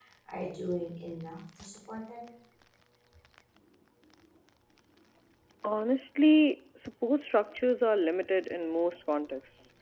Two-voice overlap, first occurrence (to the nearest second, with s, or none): none